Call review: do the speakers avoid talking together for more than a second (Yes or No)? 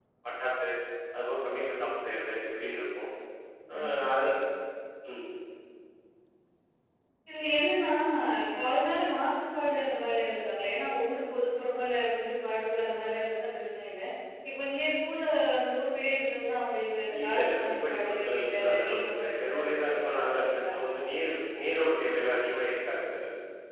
No